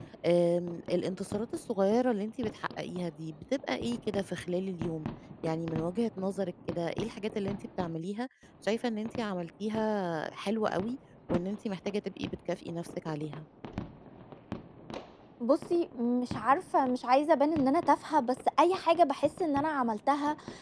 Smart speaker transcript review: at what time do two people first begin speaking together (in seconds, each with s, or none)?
none